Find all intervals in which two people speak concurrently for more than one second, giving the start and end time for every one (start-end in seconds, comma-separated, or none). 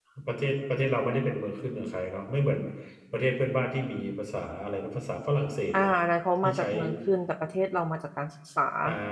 none